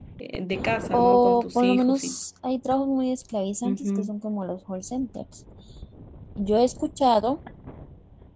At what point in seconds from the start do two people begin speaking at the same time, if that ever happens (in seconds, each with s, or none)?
0.9 s